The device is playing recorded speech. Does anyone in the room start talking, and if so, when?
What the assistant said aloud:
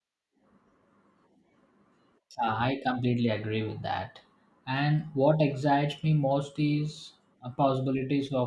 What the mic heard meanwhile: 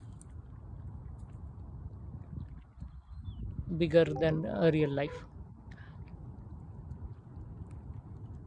4 s

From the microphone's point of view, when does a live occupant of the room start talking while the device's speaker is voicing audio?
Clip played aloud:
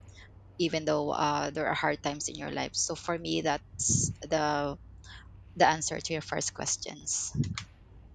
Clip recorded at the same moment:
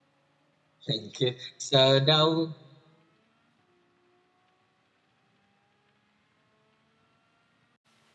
1 s

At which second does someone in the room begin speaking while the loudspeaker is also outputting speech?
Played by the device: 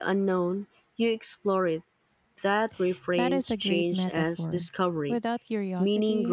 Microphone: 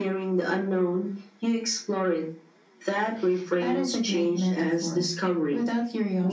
none

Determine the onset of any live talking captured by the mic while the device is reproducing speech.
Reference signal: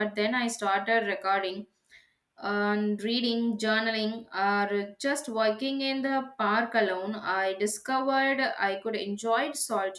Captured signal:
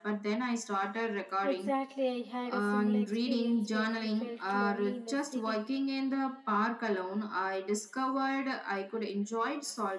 2 s

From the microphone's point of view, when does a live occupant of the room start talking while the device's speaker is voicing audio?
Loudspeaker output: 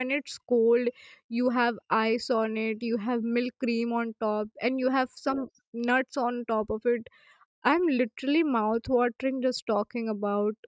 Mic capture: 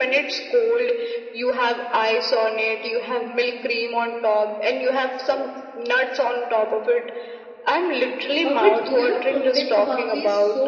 8 s

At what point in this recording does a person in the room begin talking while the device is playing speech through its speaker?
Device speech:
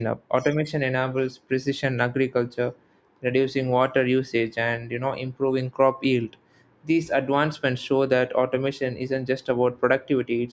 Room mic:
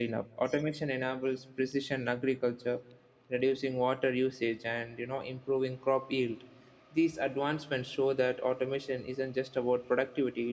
none

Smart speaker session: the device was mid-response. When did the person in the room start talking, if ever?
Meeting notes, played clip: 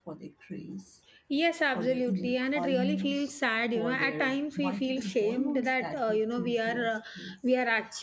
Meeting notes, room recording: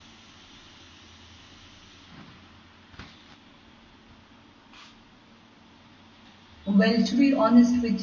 7 s

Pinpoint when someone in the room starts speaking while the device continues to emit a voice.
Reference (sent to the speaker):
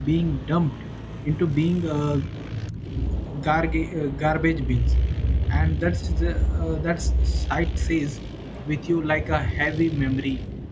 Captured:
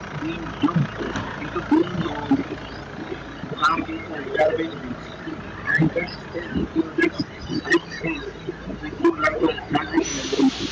none

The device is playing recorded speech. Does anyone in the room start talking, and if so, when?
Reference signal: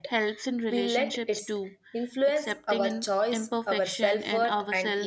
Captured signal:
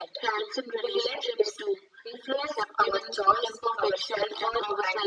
none

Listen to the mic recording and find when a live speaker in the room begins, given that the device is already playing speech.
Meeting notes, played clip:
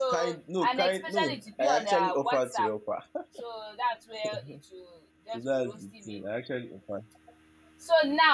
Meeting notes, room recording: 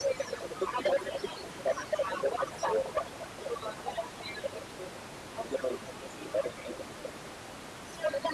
none

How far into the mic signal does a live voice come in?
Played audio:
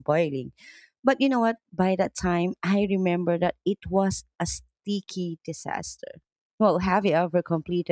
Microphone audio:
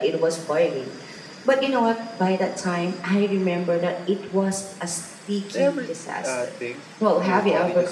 6 s

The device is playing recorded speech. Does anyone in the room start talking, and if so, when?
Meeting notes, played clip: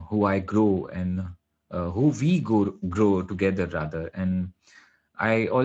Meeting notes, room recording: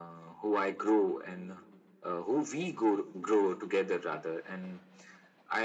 none

